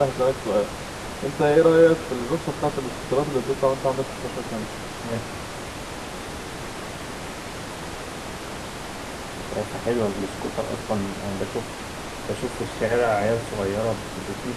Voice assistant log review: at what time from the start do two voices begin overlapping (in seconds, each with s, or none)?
none